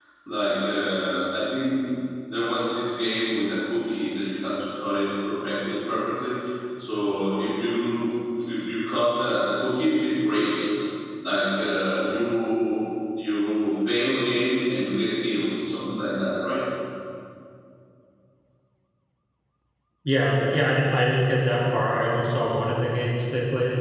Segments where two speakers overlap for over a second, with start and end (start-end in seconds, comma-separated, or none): none